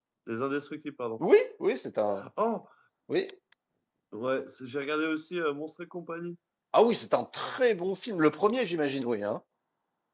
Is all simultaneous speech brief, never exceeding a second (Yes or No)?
Yes